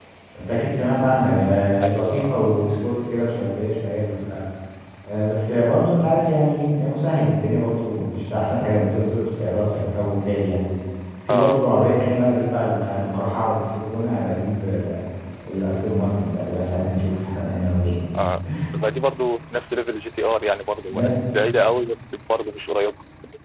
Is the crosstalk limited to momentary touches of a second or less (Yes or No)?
Yes